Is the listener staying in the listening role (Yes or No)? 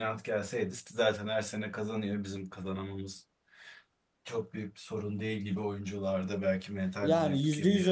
No